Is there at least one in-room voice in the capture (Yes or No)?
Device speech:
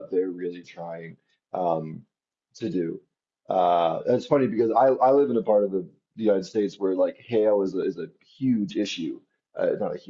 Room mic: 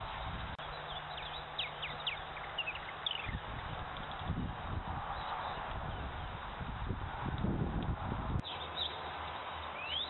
No